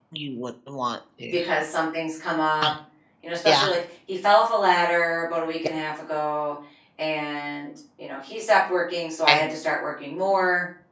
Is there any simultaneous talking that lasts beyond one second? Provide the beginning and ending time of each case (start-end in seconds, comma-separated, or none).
none